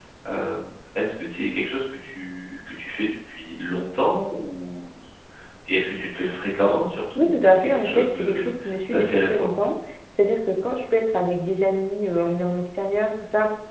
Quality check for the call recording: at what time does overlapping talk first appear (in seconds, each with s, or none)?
7.2 s